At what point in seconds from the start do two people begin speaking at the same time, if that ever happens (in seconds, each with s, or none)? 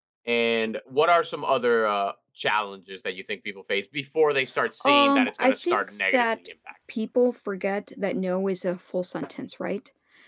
4.8 s